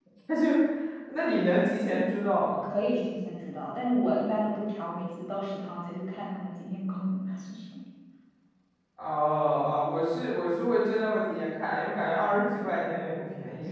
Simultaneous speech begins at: none

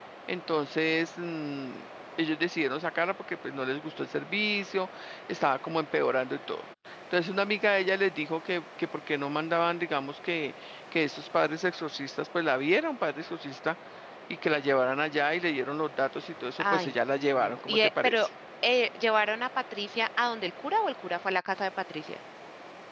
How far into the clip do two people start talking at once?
17 s

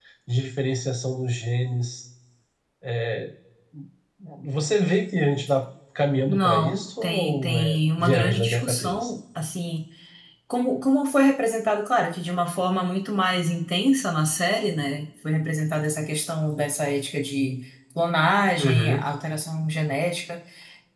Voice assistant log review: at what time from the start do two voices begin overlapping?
6 s

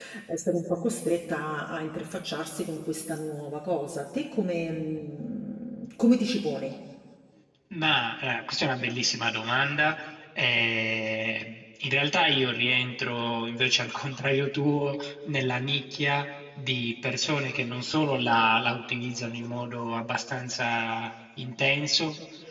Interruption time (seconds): none

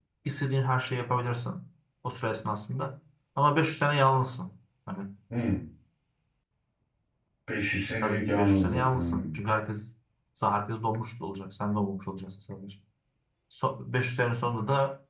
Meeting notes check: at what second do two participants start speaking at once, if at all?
8 s

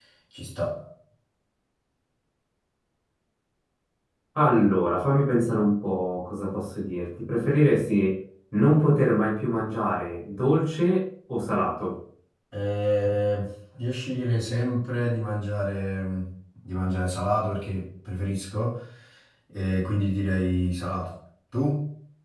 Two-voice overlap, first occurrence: none

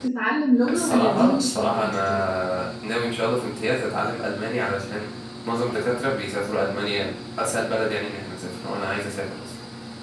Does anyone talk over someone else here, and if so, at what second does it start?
1 s

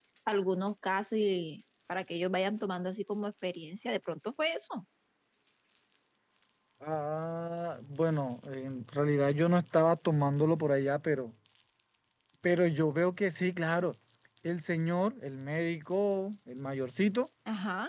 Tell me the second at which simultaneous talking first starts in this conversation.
none

